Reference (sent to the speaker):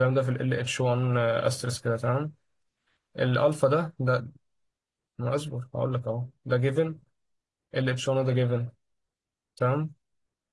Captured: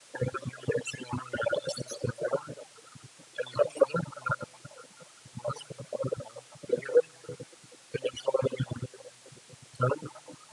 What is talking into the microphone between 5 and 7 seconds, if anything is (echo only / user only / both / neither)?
echo only